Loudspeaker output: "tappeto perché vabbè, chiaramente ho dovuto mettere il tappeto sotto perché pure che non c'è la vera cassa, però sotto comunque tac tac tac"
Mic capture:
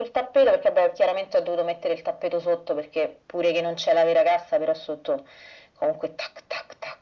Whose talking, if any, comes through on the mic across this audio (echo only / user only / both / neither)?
echo only